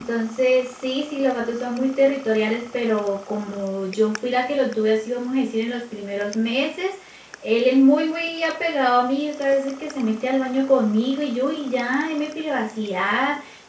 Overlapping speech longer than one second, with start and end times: none

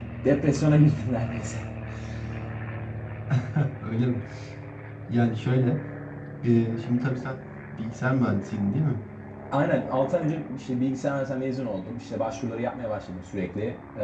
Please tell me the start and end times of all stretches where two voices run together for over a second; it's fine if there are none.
none

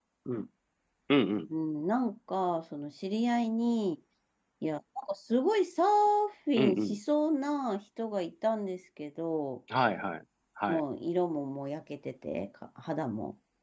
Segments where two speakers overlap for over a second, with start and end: none

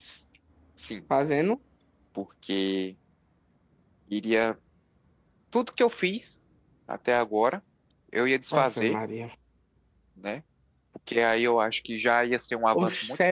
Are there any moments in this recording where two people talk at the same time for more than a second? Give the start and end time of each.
none

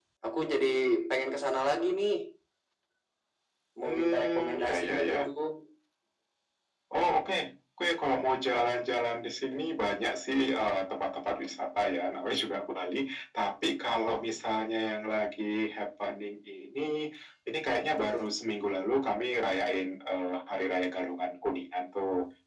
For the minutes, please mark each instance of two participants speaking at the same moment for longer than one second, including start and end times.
3.8-5.3

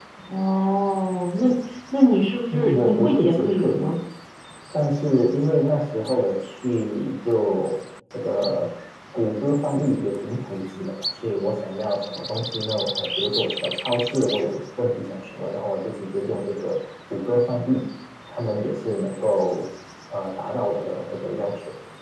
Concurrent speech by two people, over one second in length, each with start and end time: 2.5-3.9

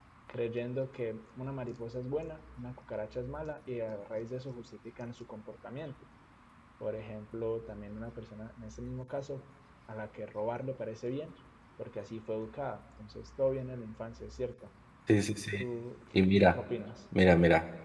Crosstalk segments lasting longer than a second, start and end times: none

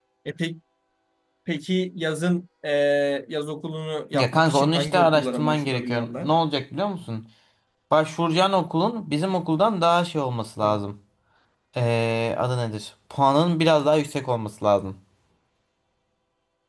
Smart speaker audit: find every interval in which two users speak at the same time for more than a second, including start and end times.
4.2-6.4

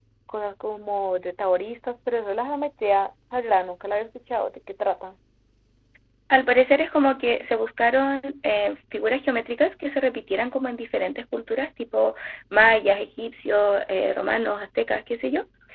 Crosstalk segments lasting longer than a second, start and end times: none

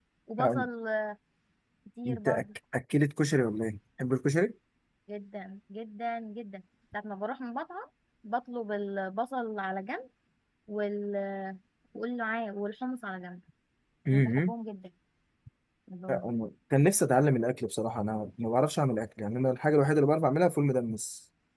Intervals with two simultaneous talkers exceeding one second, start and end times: none

